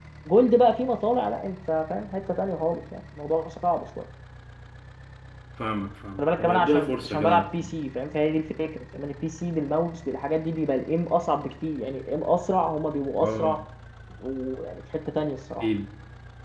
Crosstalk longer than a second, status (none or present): present